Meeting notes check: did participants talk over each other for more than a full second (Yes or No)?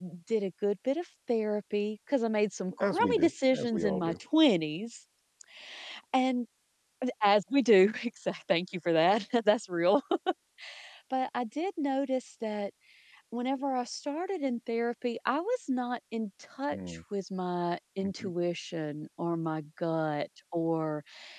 Yes